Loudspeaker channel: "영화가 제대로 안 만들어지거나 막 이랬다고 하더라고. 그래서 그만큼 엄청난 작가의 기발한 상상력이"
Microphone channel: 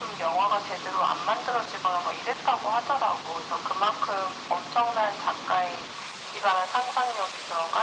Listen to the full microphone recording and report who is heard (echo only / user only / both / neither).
echo only